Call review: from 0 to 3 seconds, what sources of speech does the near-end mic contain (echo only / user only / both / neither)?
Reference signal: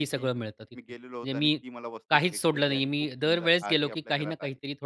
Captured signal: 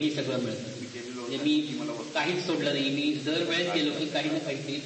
echo only